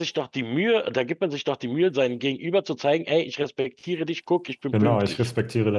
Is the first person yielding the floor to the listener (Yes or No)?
Yes